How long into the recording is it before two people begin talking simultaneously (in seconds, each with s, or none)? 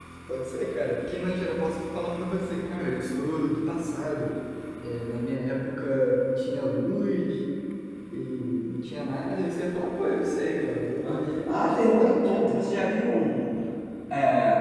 11.0 s